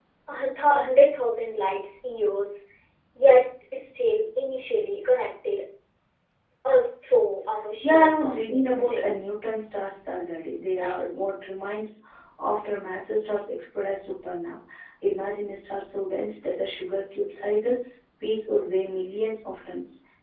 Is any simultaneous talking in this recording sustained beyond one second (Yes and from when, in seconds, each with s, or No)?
Yes, from 7.8 s